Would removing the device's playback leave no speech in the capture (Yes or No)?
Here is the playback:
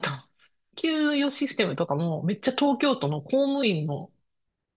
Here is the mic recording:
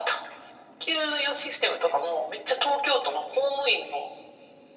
Yes